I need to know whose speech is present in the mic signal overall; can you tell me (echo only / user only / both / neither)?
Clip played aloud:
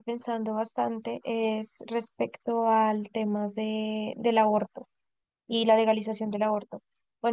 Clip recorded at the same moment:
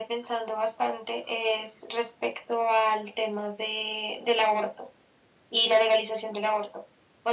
echo only